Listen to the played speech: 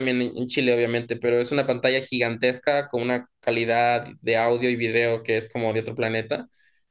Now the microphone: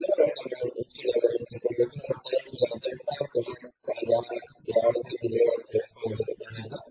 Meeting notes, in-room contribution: none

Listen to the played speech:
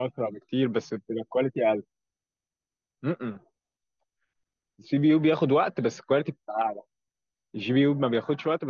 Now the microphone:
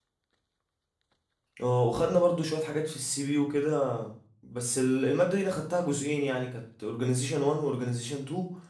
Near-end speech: present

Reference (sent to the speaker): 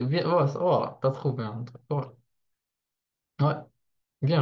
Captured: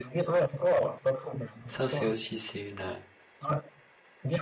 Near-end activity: present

